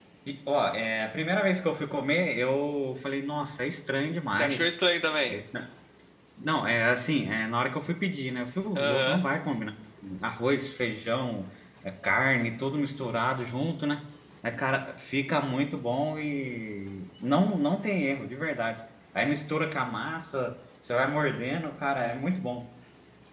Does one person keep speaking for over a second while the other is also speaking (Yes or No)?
No